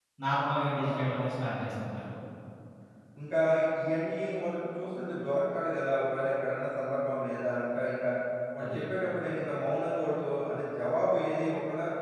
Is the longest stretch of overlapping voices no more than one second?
Yes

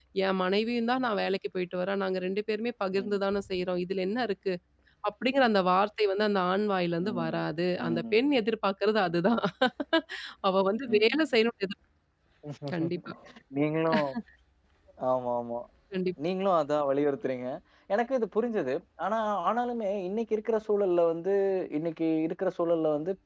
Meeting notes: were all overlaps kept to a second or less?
Yes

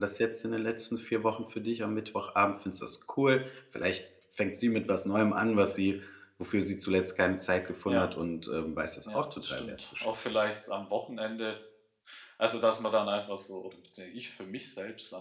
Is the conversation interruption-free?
No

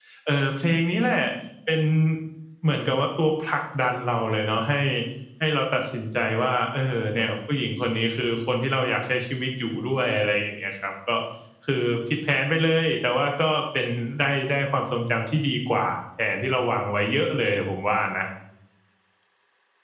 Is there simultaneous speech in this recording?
No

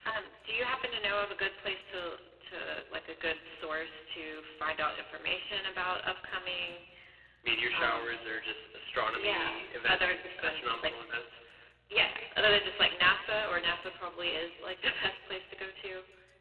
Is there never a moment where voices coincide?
No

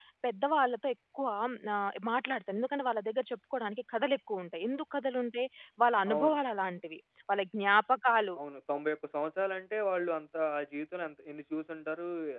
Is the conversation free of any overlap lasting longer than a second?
Yes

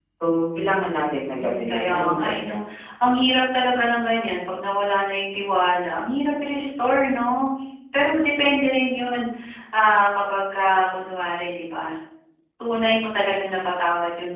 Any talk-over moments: Yes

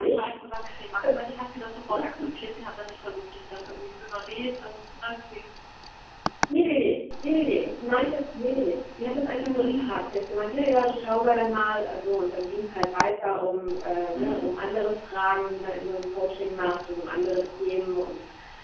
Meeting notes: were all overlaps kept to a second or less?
Yes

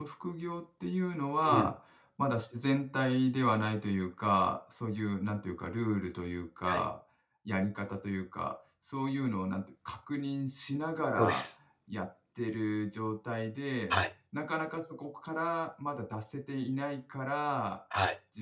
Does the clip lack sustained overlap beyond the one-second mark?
Yes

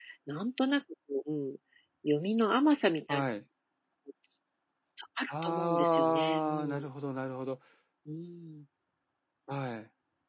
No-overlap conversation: No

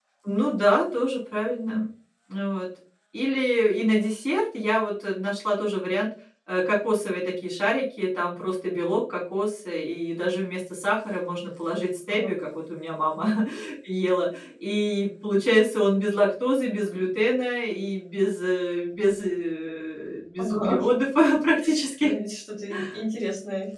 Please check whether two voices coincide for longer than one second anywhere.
No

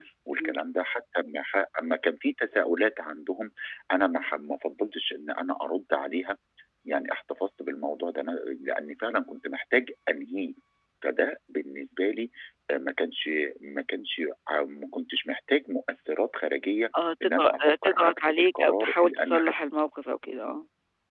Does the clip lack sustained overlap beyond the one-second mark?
No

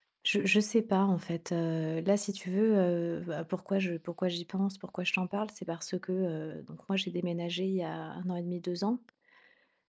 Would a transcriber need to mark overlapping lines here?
No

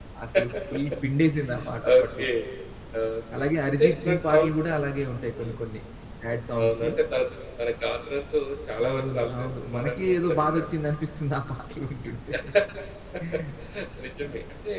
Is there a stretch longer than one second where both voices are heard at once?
Yes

